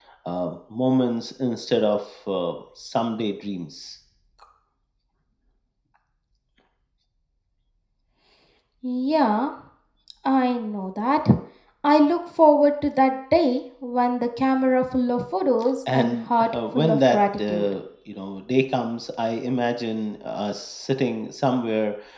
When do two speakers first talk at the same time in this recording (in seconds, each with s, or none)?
15.9 s